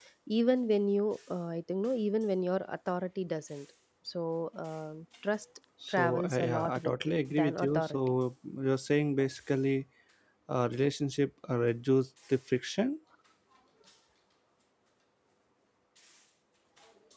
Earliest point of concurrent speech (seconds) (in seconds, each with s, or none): 5.8 s